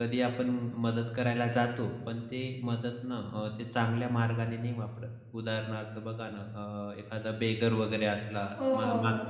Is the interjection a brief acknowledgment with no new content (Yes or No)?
Yes